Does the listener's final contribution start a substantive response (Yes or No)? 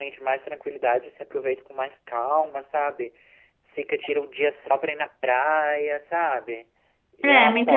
Yes